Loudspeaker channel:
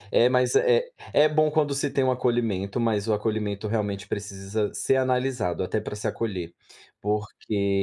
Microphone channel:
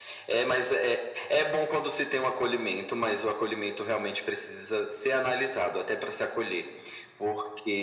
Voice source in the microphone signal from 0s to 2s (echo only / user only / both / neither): echo only